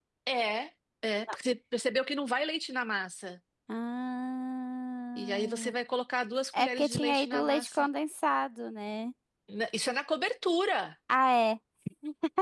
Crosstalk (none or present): present